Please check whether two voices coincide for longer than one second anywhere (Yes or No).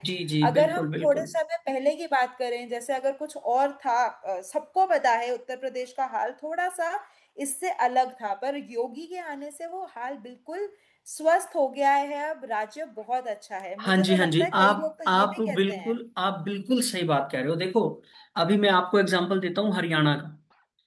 Yes